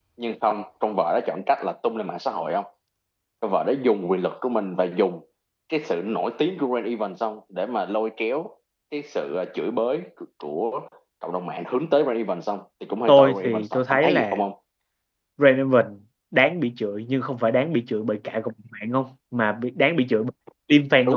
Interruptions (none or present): present